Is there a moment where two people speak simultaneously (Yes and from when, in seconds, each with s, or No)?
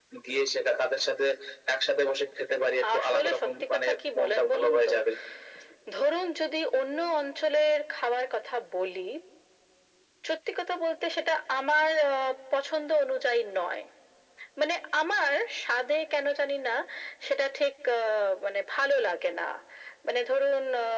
Yes, from 2.8 s